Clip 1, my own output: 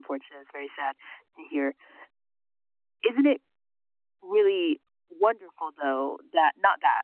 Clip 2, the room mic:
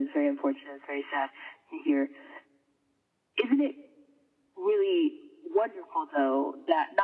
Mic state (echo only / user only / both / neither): echo only